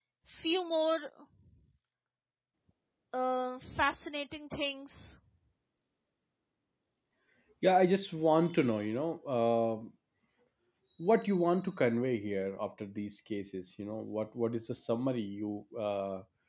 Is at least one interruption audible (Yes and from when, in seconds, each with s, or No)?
No